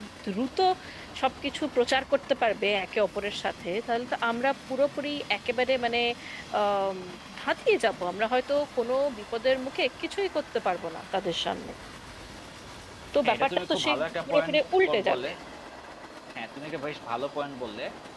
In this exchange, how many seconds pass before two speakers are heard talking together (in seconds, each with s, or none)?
13.2 s